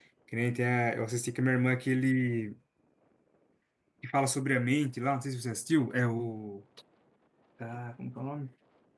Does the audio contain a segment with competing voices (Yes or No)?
No